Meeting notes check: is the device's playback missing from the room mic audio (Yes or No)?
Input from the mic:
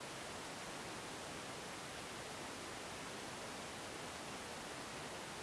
Yes